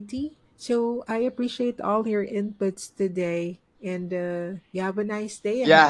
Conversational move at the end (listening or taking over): taking over